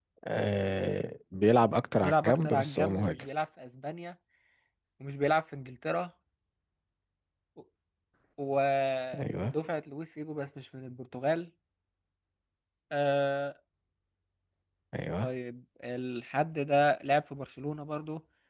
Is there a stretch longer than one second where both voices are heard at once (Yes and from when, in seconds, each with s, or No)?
Yes, from 2.0 s